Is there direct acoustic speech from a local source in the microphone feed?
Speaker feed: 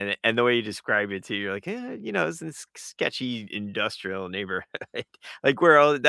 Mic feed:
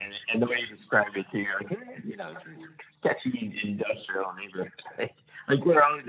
No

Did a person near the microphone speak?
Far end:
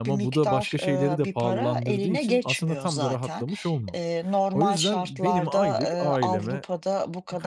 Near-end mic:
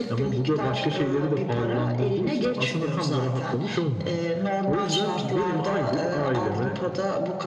No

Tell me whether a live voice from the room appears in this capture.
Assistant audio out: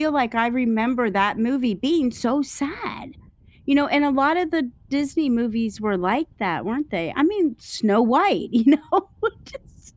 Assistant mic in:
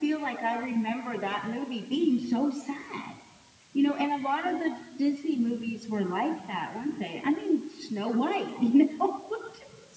No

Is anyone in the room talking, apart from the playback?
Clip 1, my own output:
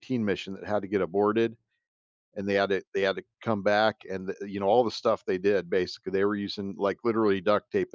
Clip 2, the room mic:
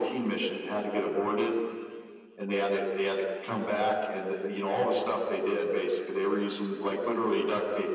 No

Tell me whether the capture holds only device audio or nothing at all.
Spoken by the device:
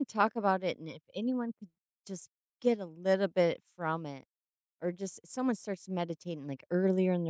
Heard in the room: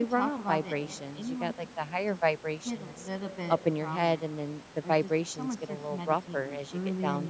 No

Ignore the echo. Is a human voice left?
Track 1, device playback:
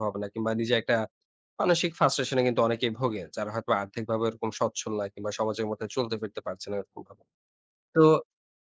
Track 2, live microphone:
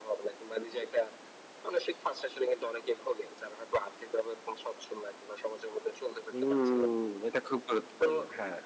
Yes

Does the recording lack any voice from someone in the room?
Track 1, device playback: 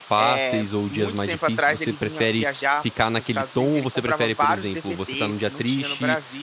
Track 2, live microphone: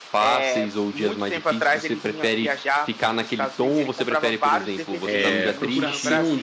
No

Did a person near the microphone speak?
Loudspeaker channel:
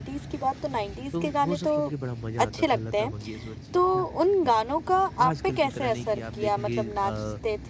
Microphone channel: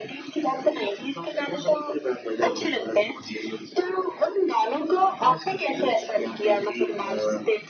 No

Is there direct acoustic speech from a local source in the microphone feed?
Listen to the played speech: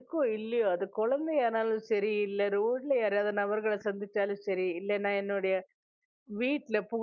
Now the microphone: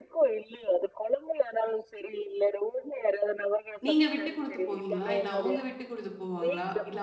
Yes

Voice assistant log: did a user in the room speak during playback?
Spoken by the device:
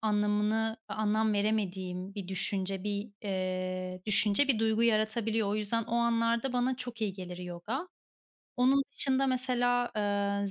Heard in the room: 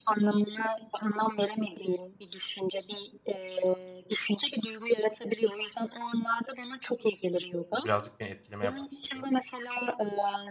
Yes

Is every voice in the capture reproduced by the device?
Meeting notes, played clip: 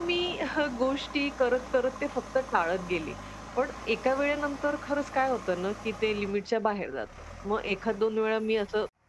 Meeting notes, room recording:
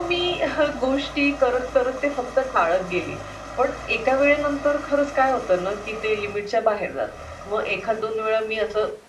Yes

